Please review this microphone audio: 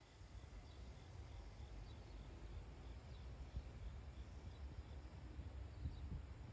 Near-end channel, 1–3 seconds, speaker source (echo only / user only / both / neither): neither